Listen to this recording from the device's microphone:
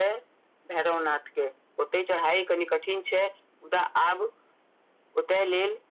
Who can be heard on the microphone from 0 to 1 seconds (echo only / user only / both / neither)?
echo only